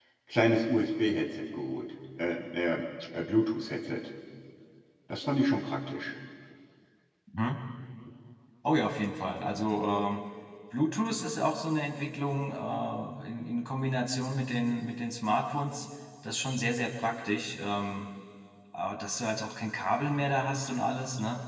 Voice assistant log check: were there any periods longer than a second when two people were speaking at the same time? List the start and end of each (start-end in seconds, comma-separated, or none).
none